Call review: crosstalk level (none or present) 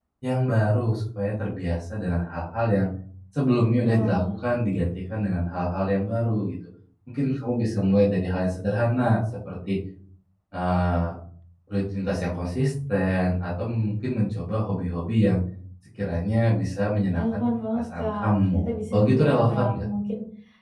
present